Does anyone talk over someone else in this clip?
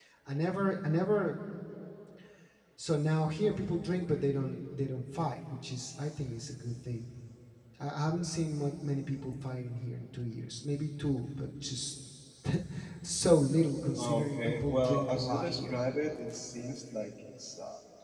Yes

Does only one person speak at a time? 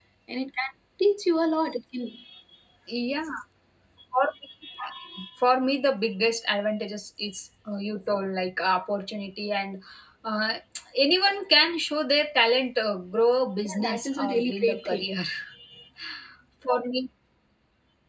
No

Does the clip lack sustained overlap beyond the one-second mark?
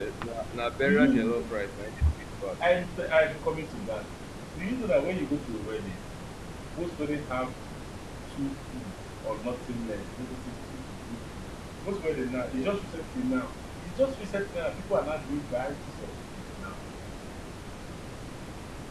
Yes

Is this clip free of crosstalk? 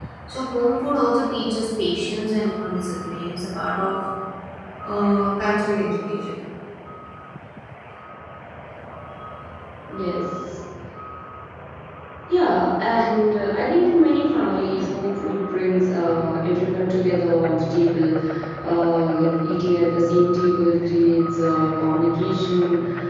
Yes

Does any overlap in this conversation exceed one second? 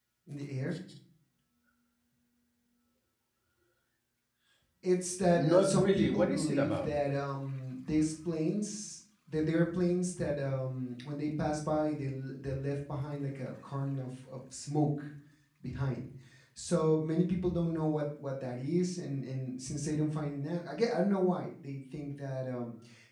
Yes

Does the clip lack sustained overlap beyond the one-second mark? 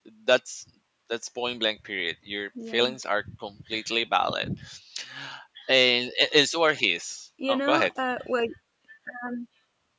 Yes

